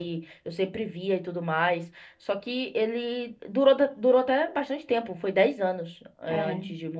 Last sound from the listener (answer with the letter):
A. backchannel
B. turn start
A